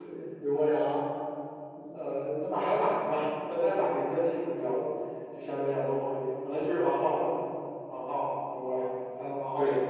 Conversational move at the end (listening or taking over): taking over